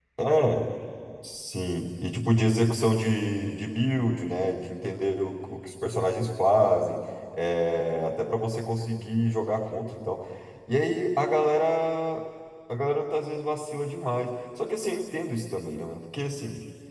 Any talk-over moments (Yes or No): No